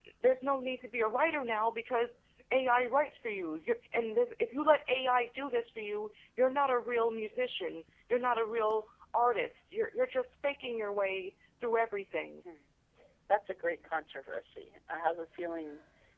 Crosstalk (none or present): none